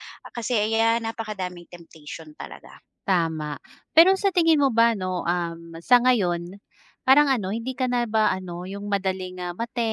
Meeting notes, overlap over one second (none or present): none